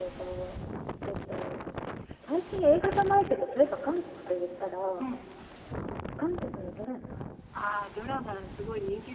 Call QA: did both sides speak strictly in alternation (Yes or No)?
Yes